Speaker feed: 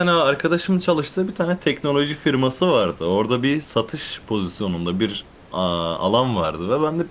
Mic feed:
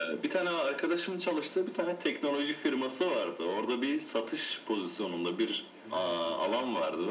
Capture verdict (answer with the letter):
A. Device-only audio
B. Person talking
B